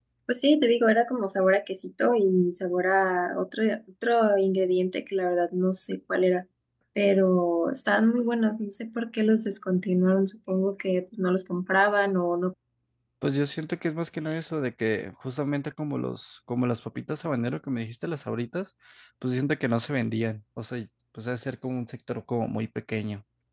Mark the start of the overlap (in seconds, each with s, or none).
none